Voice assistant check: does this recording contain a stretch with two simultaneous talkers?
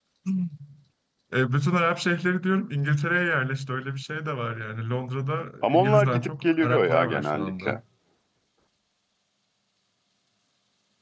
Yes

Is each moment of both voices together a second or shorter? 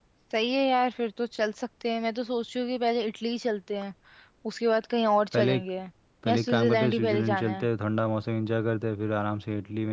No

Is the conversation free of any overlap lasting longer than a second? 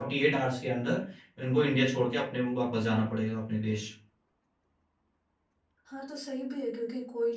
Yes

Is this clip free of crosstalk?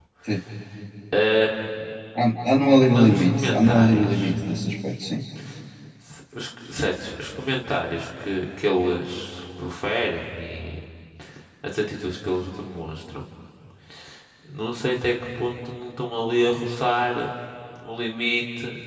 No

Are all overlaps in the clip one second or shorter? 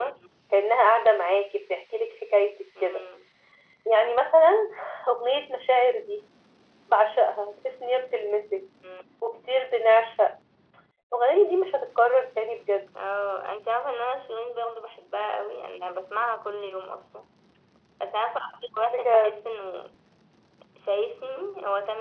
Yes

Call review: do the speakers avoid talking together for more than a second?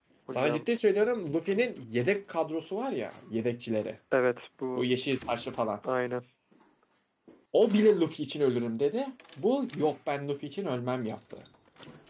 Yes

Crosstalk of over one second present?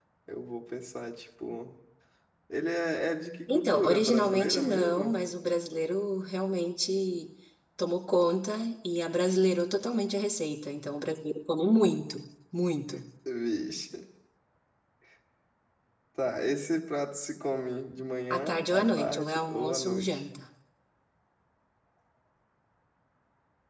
Yes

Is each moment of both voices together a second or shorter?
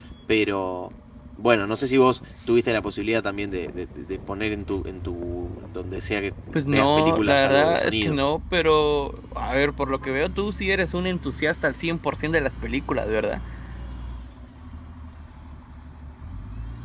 No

